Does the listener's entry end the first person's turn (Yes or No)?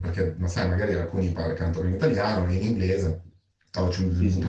No